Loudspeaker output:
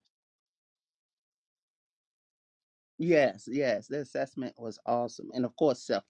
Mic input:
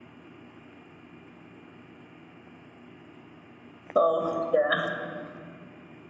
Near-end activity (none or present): present